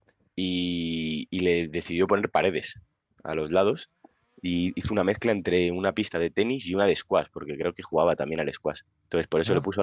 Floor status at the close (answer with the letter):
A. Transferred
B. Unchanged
B